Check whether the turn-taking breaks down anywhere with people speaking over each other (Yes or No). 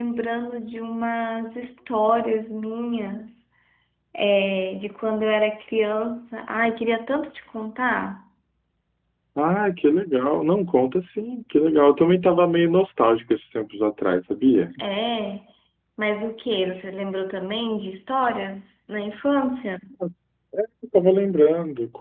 No